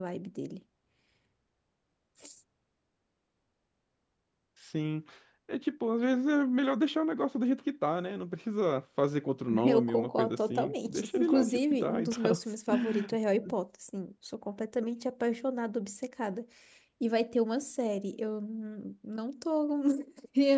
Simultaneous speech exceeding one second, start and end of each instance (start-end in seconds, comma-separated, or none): 9.6-12.4